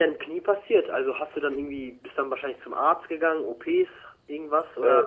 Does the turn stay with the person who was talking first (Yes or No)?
No